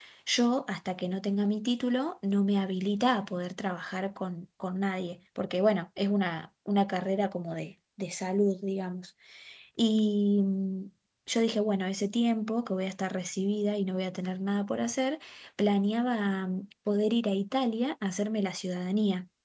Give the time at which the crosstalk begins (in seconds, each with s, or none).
none